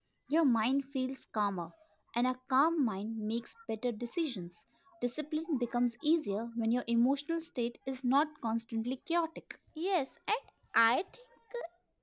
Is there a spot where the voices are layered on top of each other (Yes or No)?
No